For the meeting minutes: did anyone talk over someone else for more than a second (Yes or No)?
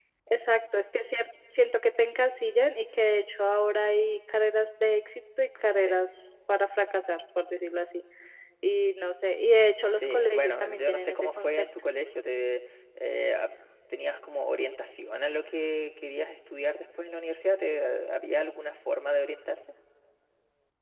Yes